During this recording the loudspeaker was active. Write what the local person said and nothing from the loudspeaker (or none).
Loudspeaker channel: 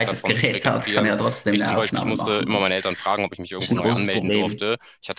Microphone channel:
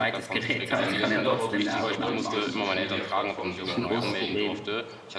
Ähm, ich finde aber durch diese heutige Social-Media-Plattform, die man quasi